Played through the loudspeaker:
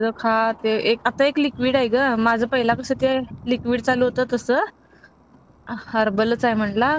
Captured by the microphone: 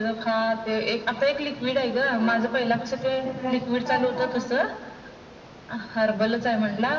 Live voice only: हा हा ते प्लास्टर काढलं काकाचं?

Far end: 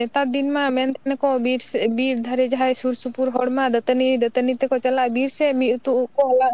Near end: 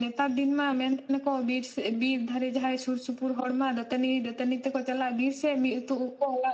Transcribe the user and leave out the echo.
none

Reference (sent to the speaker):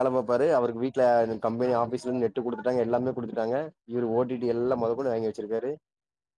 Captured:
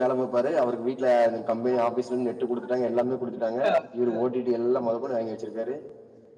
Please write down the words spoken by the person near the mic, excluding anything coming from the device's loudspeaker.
அதா

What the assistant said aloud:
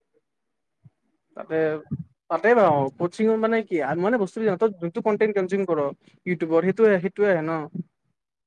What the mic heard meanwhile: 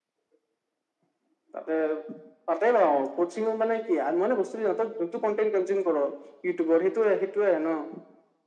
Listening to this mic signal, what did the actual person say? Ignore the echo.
none

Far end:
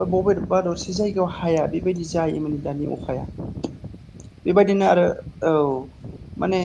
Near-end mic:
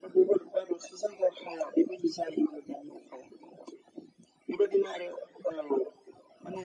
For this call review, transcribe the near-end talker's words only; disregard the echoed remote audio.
none

